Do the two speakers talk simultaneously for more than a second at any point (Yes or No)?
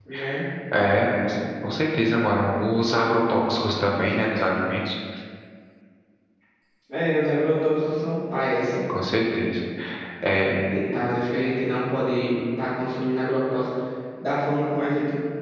No